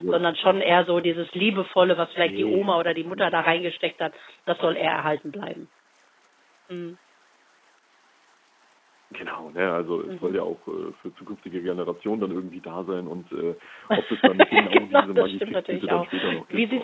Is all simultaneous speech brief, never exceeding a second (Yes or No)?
No